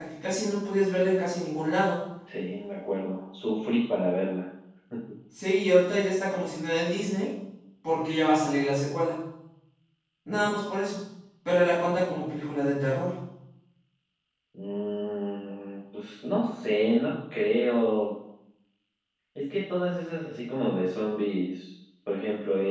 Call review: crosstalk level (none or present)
none